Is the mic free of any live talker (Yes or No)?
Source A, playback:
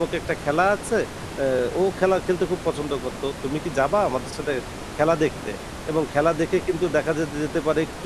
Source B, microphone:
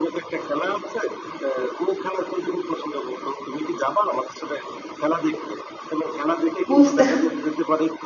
No